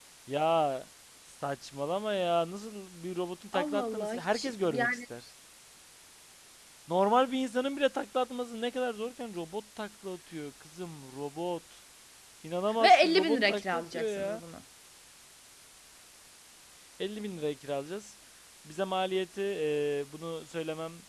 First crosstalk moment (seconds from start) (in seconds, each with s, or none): 3.5 s